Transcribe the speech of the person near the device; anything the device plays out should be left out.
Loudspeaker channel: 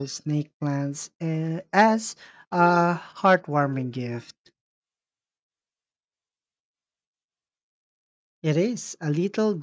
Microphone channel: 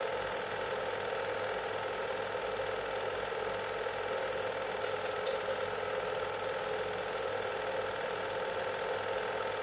none

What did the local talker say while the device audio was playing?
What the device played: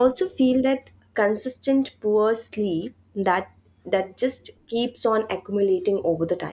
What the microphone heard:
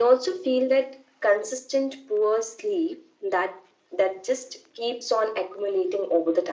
none

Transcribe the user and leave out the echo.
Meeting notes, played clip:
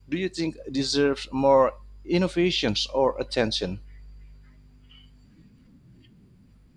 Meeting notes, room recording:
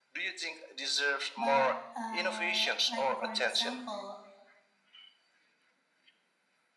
But uh, like for example,

